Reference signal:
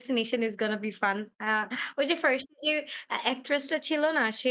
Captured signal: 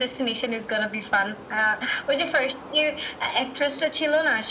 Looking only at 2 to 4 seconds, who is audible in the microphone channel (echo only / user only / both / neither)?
echo only